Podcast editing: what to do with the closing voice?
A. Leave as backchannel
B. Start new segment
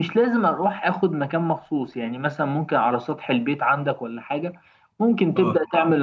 A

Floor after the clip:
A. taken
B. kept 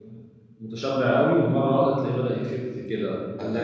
A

